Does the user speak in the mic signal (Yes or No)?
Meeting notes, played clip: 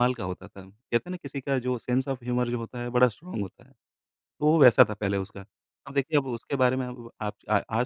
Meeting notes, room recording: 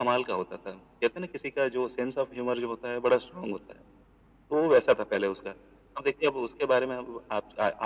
No